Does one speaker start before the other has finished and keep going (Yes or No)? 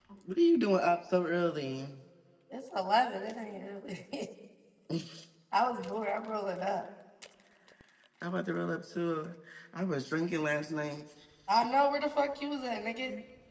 No